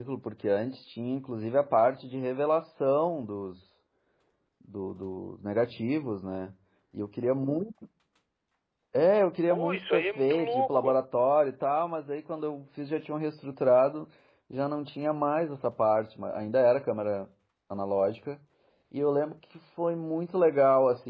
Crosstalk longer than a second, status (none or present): present